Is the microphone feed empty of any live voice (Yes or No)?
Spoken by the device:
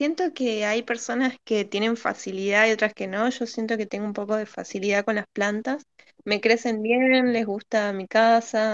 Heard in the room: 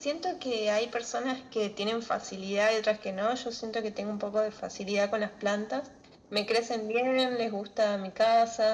Yes